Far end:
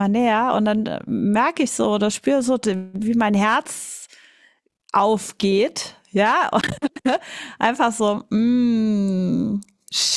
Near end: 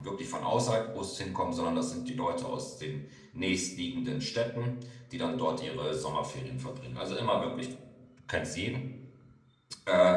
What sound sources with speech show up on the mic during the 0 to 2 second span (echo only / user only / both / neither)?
user only